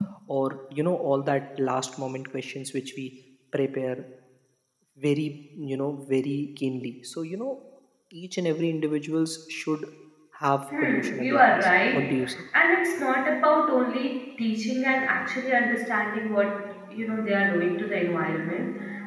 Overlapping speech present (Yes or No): Yes